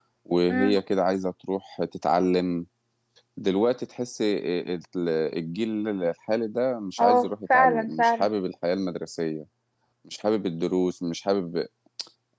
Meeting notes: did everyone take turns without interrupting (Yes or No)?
No